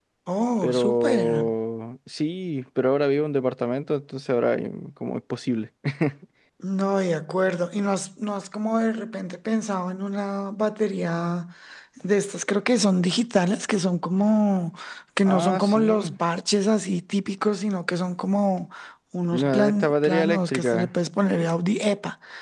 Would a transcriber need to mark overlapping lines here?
Yes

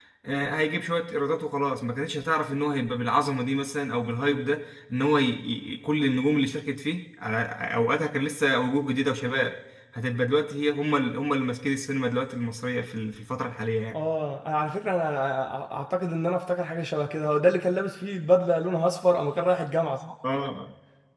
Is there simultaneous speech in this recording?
No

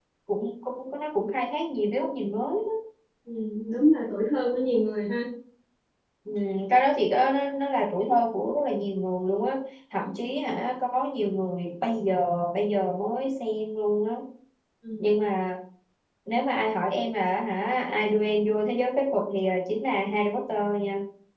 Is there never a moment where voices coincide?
Yes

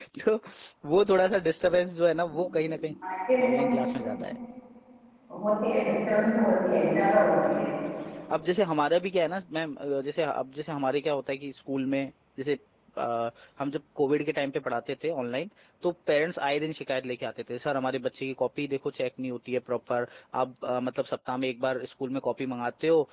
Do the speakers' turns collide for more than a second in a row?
No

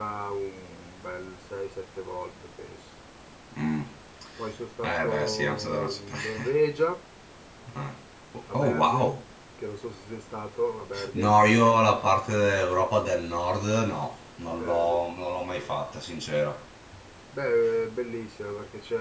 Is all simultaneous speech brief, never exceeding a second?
No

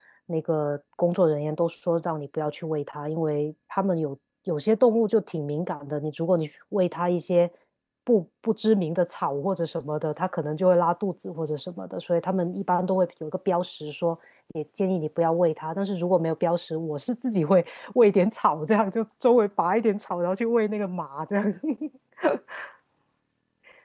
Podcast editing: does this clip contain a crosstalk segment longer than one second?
No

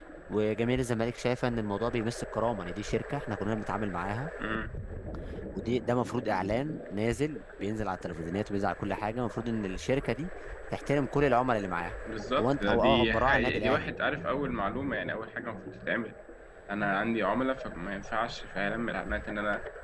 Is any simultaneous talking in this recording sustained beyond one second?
Yes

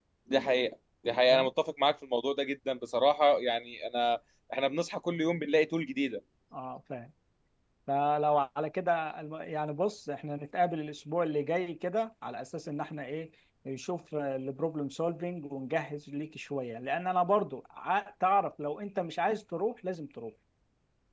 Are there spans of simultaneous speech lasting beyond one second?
No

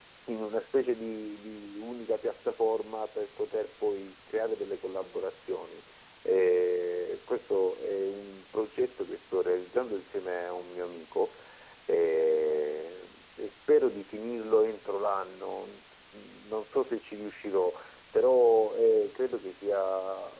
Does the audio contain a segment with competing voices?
No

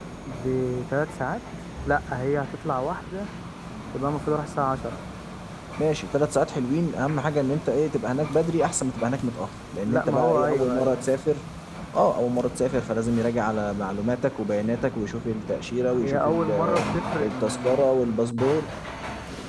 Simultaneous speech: Yes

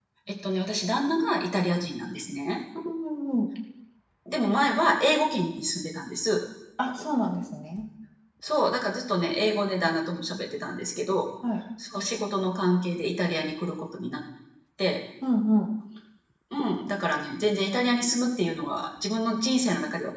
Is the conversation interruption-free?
Yes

